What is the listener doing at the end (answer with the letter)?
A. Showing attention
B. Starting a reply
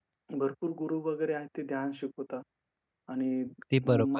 A